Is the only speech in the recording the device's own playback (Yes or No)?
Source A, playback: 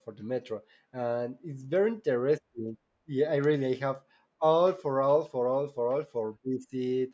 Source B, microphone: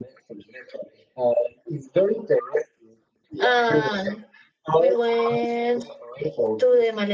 No